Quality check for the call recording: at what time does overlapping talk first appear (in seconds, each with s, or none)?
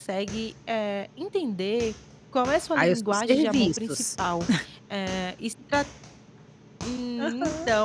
2.8 s